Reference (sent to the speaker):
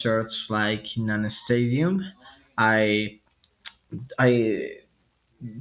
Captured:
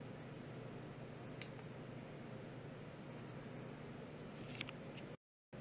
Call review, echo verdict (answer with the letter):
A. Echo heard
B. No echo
B